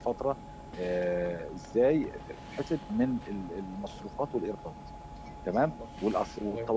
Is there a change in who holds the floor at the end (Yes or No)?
No